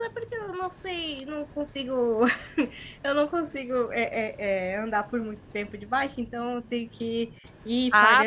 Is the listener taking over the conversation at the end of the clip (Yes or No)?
Yes